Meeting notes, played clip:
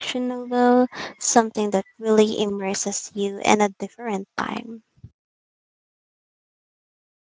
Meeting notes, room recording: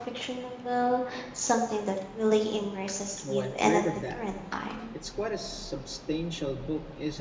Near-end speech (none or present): present